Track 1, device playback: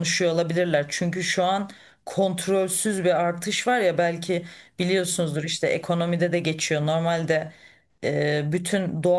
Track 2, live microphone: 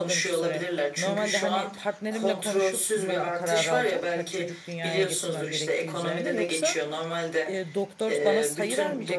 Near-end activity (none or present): present